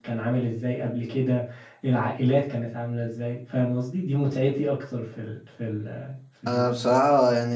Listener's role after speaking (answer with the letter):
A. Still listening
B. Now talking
B